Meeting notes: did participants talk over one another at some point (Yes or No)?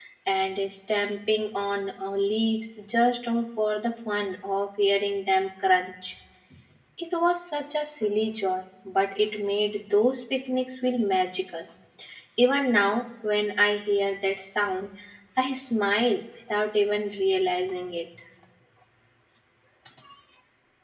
No